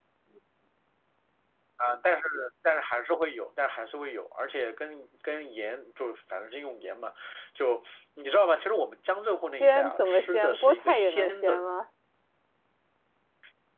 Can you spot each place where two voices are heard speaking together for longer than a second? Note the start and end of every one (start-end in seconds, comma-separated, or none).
9.6-11.6